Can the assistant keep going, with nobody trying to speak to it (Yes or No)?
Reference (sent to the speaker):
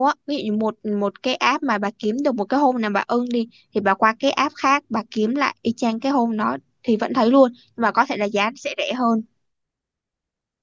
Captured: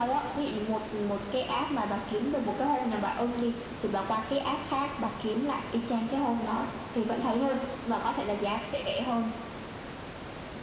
Yes